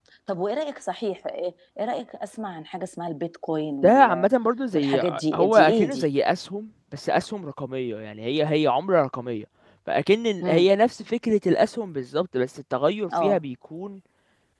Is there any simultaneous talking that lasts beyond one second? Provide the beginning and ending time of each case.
4.7-6.0

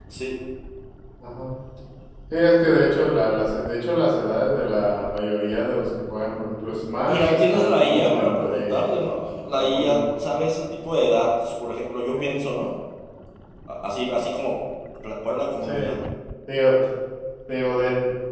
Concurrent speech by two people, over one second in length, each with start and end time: 7.1-8.9

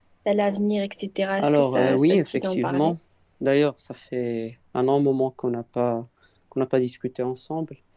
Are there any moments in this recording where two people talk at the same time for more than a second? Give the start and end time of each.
1.4-2.9

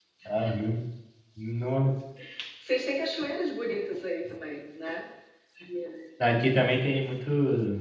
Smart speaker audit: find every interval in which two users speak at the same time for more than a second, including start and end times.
none

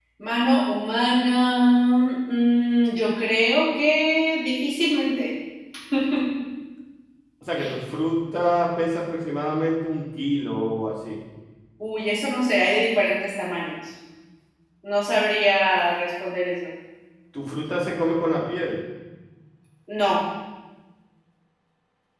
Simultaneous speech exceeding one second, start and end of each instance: none

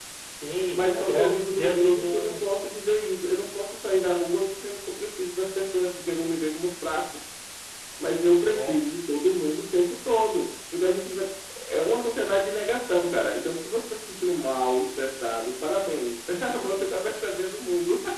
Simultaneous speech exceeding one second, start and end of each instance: 0.7-2.4

